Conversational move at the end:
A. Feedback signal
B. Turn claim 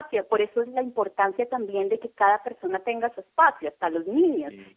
A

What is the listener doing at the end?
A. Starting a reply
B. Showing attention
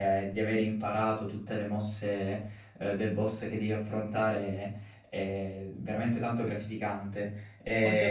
A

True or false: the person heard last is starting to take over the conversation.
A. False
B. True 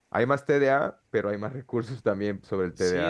B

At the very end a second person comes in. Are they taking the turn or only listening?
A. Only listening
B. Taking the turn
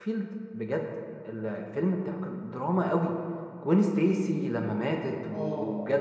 A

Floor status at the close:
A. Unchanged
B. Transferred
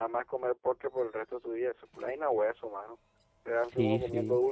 A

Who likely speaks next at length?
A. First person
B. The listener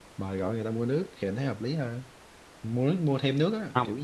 A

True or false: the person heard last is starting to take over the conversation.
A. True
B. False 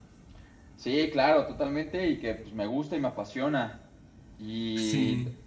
B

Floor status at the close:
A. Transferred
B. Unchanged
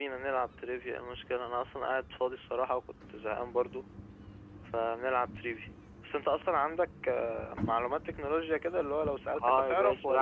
A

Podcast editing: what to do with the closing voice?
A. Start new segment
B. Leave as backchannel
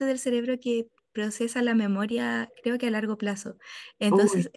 B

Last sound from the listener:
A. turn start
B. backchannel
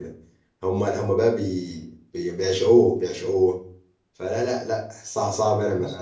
B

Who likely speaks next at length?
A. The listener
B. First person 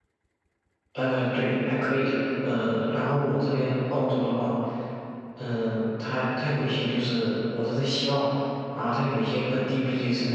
B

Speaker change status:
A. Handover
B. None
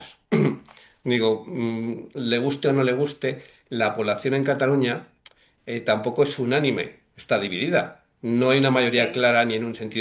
B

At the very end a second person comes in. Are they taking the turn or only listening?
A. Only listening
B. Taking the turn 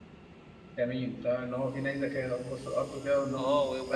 B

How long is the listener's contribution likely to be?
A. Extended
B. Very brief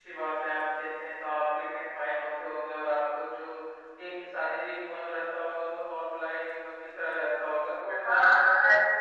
A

